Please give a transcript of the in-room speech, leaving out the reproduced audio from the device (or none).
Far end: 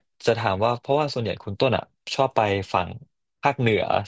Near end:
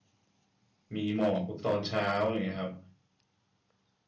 มีหมอกตอนเช้าอย่างเงี้ยครับ